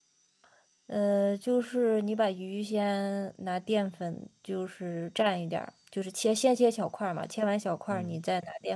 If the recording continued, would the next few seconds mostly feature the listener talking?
No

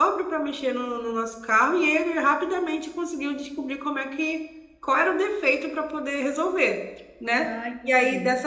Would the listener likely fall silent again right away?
Yes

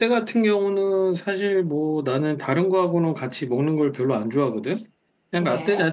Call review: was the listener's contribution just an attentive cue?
Yes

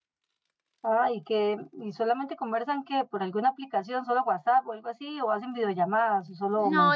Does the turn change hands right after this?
Yes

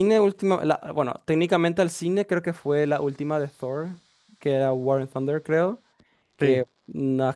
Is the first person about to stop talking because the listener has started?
No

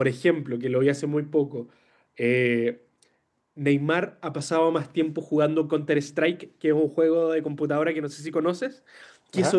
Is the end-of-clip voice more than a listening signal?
No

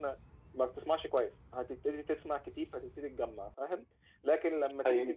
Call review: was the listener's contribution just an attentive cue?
Yes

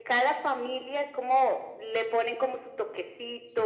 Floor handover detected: No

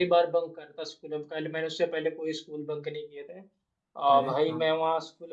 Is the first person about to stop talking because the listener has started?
No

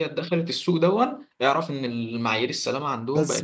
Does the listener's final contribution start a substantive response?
Yes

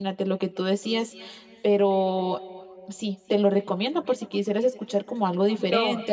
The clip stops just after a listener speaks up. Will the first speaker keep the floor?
No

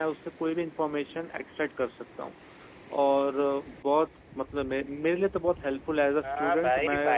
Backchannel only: No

